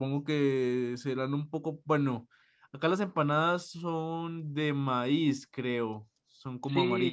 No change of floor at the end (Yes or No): No